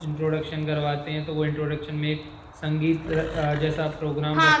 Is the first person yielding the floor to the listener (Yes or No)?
Yes